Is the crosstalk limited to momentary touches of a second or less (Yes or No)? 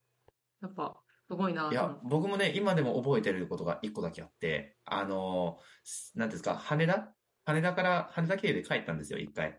Yes